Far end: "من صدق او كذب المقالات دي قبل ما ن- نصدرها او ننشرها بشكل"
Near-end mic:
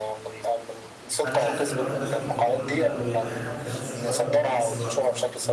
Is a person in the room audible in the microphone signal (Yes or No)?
Yes